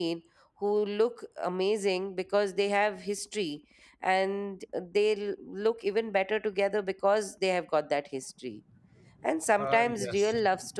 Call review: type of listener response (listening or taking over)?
listening